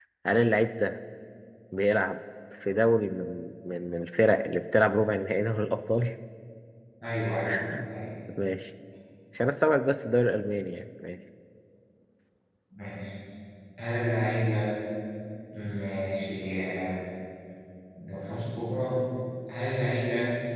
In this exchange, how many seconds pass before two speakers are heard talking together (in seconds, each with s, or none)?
none